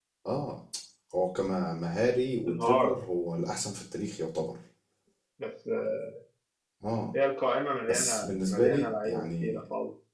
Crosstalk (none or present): present